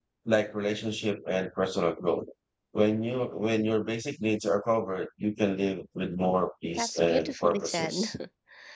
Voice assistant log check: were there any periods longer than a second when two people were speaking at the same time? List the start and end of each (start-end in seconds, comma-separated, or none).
6.7-8.1